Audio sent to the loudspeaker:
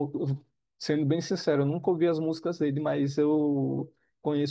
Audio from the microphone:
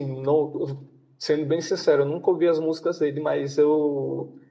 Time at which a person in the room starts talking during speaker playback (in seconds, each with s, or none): none